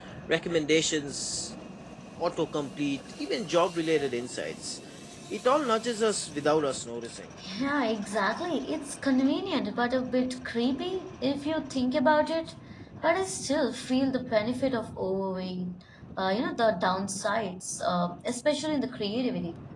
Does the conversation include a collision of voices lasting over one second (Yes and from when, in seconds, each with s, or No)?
No